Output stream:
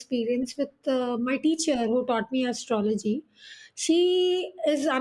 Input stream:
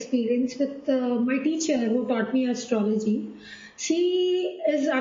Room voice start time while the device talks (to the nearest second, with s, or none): none